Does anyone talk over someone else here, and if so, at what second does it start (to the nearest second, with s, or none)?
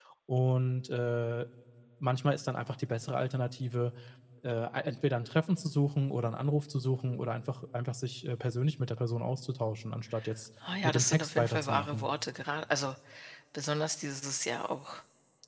11 s